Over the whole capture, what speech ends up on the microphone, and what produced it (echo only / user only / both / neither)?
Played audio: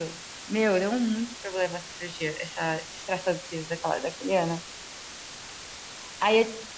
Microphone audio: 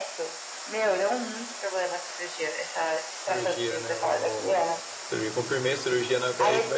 both